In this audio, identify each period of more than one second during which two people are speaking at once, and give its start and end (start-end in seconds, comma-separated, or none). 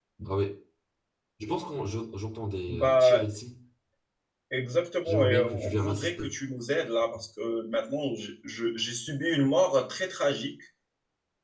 5.0-6.3